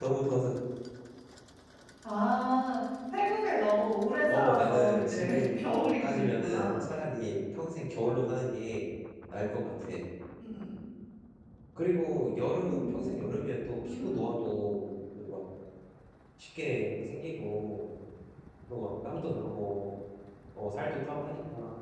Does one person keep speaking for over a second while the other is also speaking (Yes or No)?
Yes